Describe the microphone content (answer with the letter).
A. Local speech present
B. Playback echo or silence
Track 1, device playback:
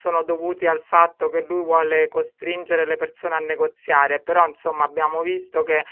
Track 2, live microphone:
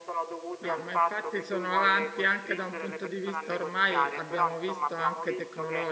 A